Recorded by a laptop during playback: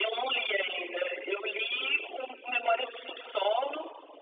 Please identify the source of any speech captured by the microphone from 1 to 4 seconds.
echo only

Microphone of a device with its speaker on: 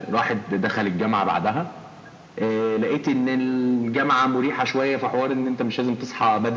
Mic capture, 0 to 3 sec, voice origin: echo only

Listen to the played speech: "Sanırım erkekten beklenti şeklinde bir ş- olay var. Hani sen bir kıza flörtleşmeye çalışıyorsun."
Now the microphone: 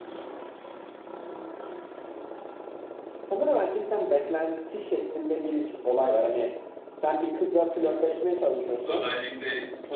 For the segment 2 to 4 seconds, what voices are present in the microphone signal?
echo only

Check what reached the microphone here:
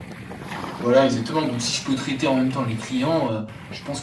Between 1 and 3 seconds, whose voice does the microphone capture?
echo only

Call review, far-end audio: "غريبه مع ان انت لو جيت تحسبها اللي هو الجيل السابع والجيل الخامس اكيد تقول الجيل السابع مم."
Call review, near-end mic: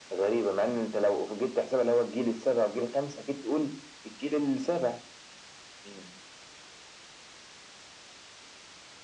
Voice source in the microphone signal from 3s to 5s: echo only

